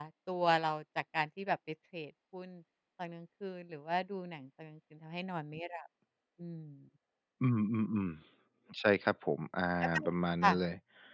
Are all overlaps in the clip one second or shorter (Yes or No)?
Yes